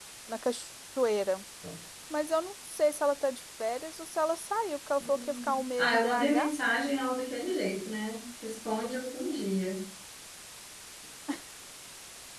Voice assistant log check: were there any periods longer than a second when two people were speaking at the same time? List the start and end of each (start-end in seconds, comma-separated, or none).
5.0-6.5